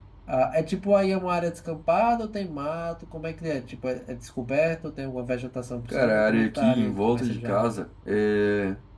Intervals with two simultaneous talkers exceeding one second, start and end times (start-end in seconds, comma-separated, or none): 5.9-7.8